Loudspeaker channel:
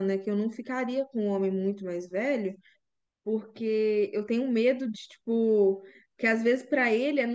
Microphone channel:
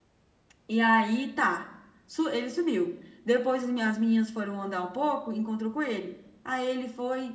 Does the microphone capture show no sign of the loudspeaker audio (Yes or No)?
Yes